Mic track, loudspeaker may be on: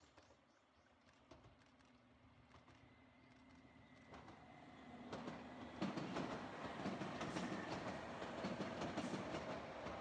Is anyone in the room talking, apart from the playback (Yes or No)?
No